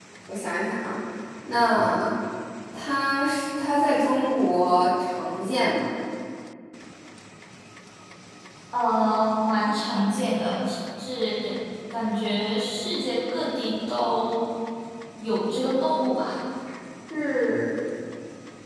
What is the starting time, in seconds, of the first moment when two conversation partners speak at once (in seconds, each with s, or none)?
none